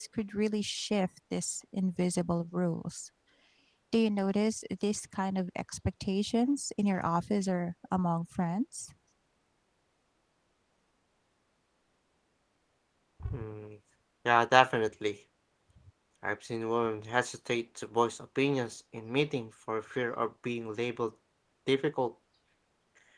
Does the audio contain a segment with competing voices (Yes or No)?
No